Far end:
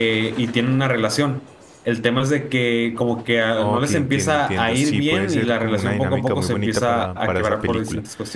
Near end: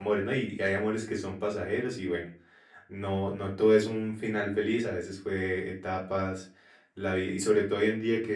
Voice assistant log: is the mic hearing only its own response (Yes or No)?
No